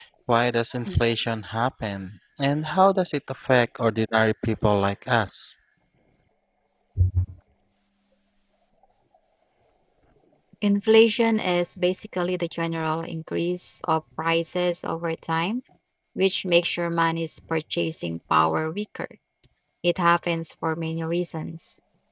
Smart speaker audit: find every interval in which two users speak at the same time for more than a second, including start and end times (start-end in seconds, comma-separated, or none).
none